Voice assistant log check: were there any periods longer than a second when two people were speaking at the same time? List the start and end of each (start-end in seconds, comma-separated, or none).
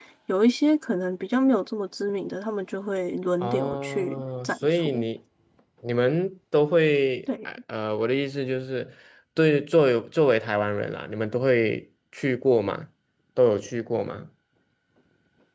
3.4-5.0